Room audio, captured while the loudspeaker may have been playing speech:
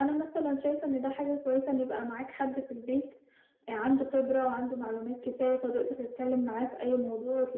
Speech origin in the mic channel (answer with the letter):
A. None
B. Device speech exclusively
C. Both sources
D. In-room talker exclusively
B